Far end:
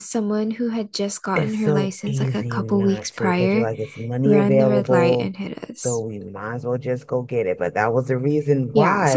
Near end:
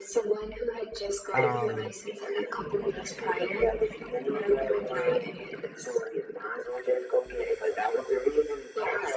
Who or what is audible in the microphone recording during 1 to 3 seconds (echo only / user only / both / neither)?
both